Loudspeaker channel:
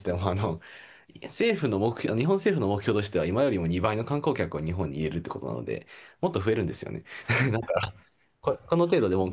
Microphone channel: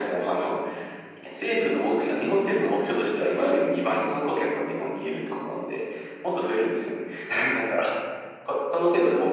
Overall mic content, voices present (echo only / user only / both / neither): echo only